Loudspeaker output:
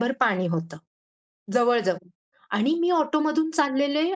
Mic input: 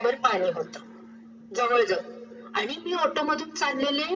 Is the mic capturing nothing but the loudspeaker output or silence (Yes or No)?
Yes